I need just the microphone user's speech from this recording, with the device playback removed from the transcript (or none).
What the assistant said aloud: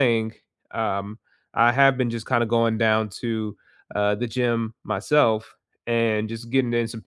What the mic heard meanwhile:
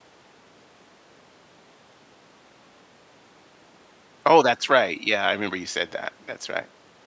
Oh, that's right. Yeah, I remember you said that. That's right.